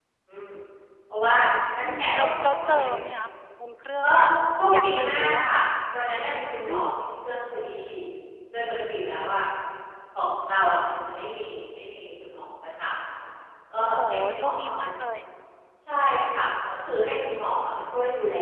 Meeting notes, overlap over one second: present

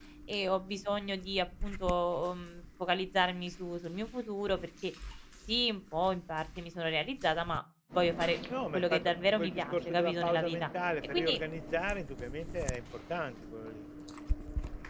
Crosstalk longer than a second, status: present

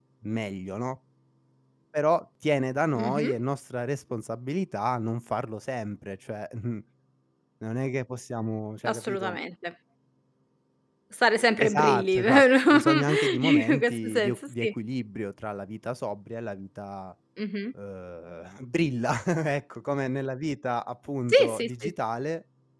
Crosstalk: present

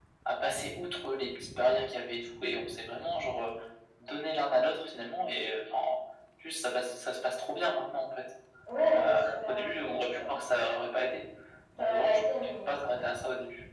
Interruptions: present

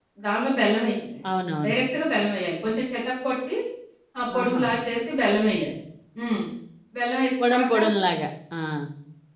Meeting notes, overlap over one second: none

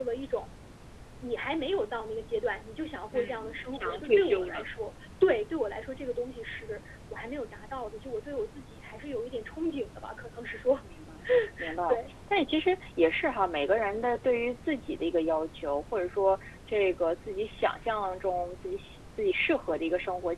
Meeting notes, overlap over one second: present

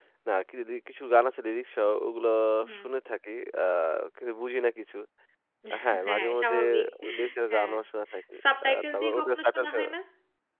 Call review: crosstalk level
present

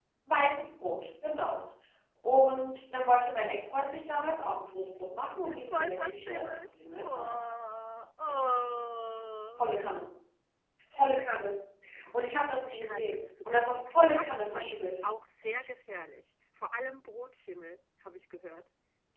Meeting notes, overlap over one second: present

